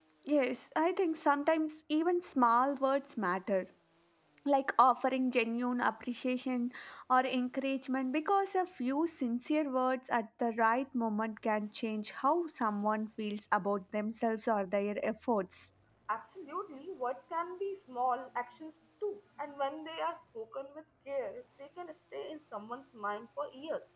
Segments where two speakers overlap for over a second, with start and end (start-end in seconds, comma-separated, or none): none